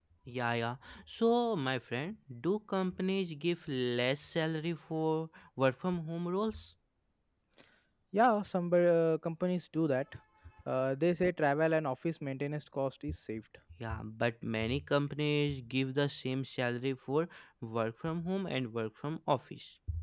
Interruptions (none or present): none